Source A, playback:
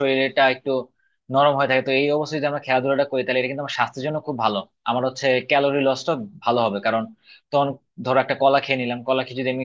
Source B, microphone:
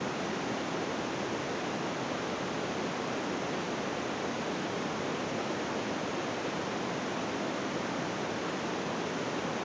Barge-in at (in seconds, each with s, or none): none